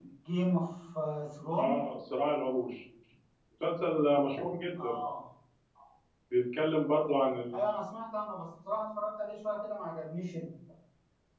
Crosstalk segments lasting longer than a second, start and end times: none

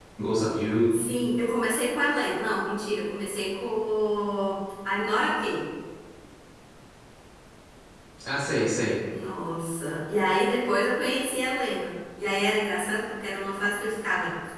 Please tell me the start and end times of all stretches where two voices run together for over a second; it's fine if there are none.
none

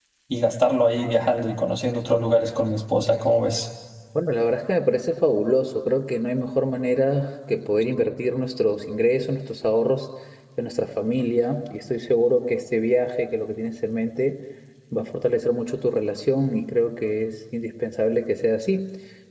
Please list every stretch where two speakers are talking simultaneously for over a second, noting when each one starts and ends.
none

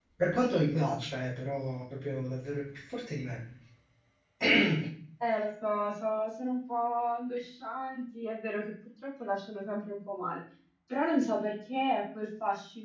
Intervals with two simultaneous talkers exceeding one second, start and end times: none

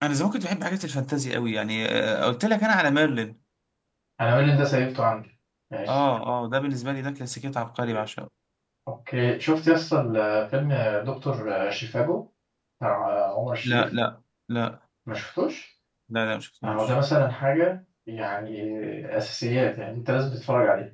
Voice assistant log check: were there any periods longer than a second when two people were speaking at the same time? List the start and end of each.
none

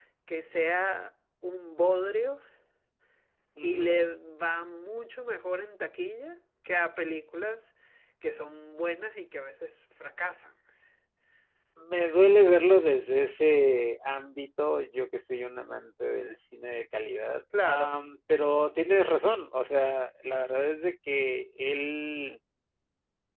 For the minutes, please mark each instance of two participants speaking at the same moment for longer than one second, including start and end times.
none

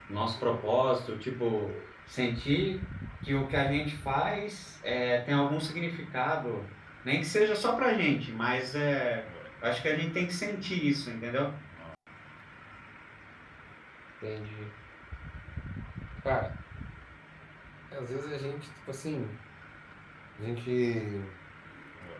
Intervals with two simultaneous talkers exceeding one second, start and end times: none

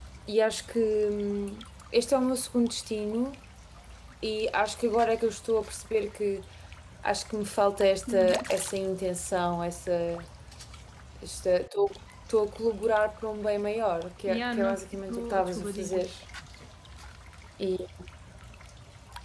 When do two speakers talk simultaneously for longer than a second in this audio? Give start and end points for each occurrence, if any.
14.3-16.1

